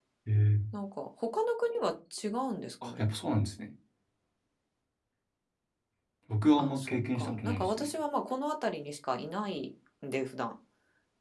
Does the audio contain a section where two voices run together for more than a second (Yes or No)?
Yes